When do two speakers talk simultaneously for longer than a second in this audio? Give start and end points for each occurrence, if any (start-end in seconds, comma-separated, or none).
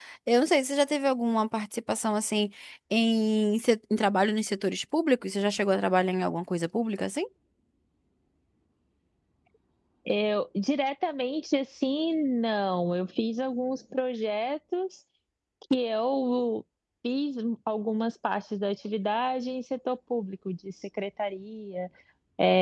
none